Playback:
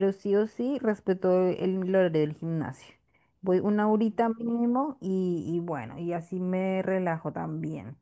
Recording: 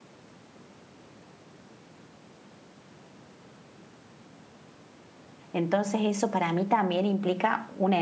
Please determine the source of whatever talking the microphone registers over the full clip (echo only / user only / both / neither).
user only